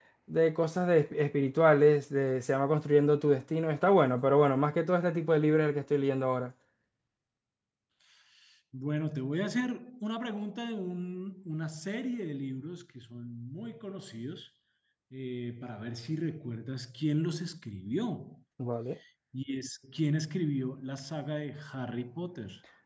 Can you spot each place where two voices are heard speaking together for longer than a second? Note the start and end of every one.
none

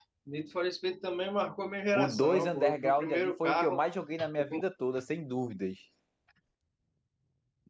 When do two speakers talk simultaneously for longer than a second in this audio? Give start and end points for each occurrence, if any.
1.9-3.8

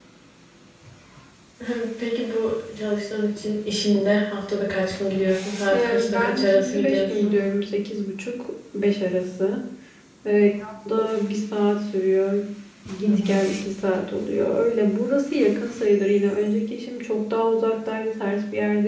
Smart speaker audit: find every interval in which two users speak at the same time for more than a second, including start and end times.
5.7-7.3

